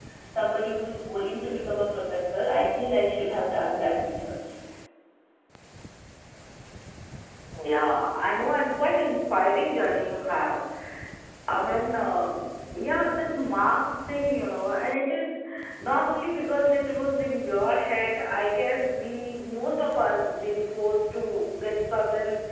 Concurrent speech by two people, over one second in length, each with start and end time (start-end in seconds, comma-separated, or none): none